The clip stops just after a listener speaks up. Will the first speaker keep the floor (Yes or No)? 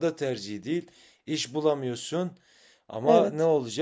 Yes